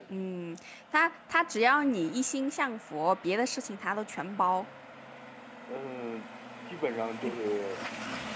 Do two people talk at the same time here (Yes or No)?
No